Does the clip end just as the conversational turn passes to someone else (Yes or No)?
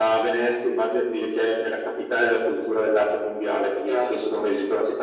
No